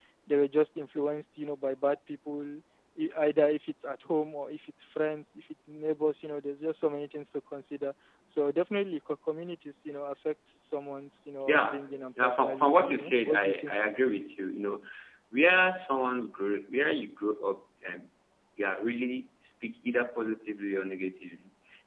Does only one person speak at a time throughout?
No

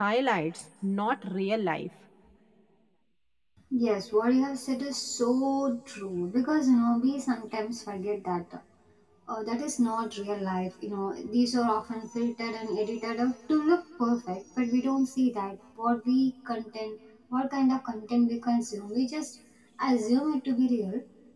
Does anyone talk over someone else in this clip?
No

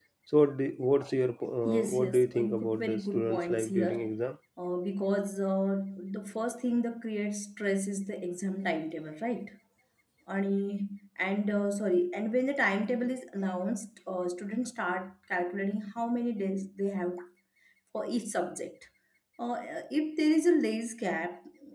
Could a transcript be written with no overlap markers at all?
No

